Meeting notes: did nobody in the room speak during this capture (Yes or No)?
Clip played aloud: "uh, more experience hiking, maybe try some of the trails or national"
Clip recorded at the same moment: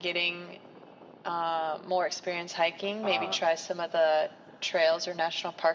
No